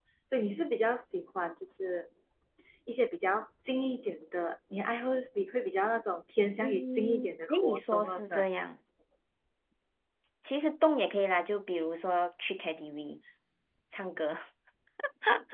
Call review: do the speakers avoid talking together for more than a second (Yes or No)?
No